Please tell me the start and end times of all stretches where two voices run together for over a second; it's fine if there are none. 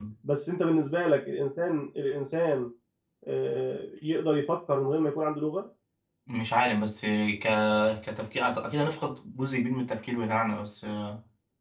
none

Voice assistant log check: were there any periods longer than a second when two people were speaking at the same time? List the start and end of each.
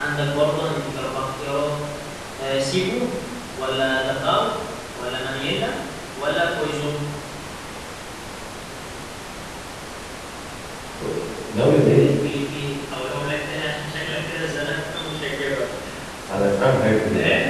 none

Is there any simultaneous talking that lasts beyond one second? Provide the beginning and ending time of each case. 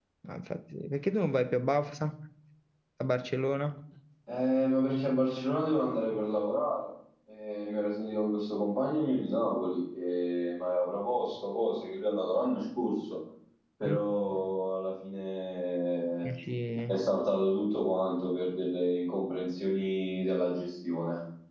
none

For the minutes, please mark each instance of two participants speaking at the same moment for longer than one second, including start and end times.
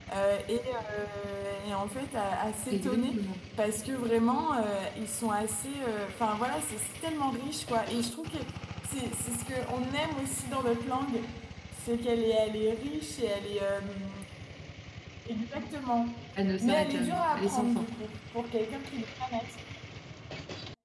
16.6-17.9

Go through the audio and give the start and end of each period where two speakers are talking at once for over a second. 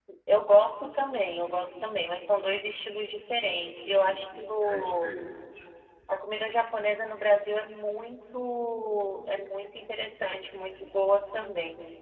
3.9-5.1

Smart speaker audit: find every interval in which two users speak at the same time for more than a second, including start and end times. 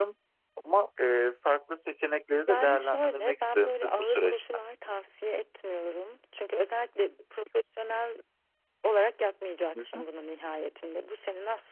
2.5-4.5

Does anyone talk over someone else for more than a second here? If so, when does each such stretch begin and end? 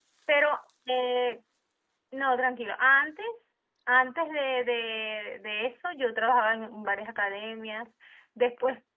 none

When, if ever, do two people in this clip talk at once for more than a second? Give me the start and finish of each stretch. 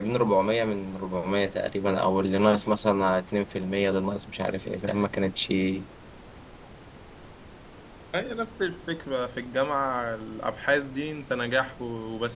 none

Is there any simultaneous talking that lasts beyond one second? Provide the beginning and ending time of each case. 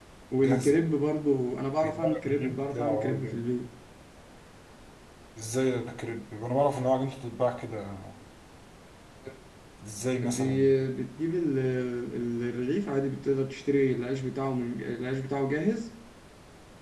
1.8-3.4

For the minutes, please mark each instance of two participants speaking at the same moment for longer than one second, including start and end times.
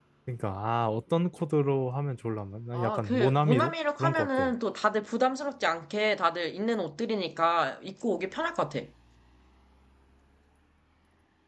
2.7-4.5

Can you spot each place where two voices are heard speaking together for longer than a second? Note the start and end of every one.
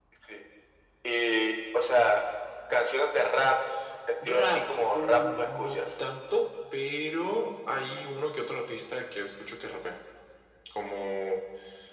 4.2-6.0

